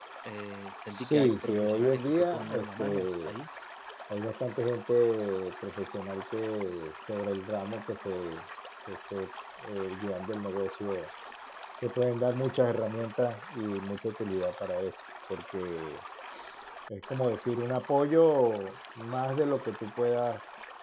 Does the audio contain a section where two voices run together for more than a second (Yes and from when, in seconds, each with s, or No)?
Yes, from 0.9 s